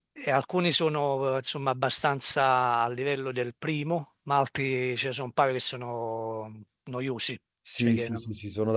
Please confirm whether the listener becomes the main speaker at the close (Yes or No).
Yes